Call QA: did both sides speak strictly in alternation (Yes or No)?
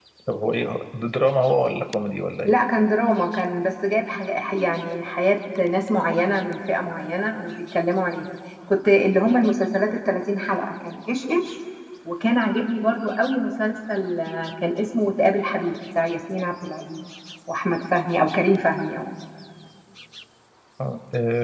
Yes